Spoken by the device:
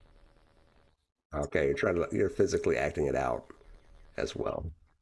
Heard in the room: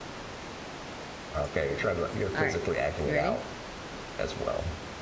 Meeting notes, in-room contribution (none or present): present